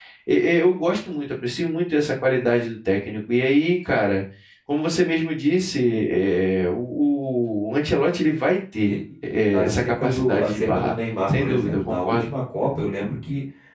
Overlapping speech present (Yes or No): Yes